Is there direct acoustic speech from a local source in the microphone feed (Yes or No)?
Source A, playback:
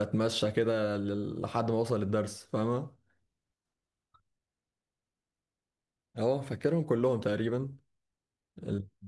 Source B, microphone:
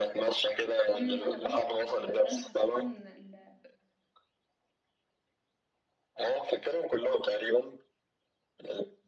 Yes